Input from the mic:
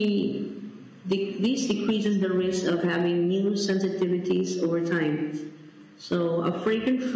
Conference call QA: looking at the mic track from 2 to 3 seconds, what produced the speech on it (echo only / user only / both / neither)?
echo only